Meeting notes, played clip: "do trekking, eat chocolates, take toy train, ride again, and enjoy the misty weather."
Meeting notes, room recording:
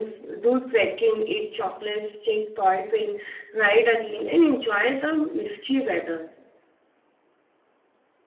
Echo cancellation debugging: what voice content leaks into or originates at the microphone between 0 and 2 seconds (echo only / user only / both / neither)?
echo only